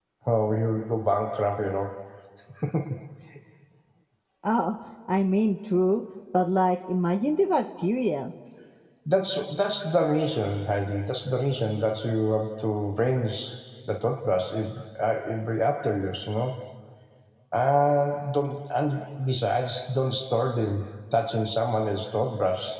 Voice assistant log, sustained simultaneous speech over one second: none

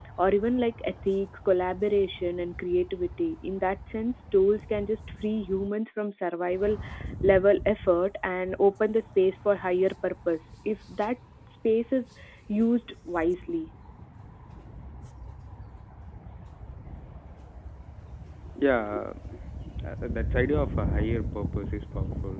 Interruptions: none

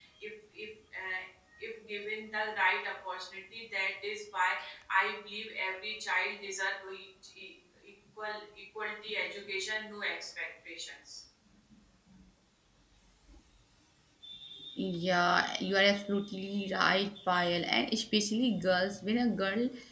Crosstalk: none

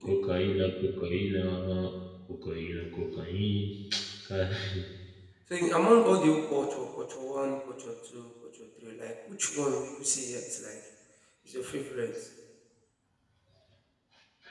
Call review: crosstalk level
none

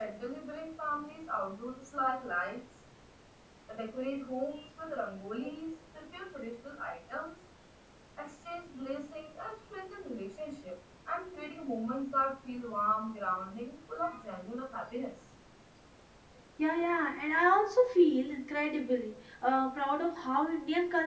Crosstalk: none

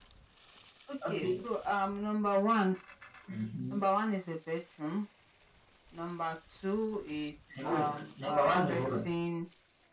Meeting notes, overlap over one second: present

